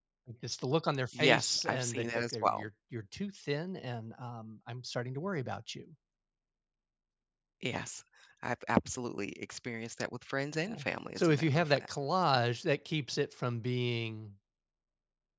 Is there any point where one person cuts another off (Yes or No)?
Yes